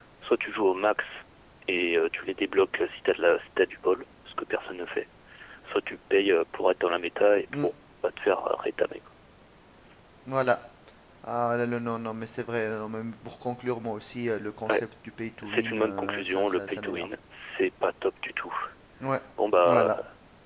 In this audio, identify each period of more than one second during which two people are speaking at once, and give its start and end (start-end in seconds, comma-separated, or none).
15.4-17.1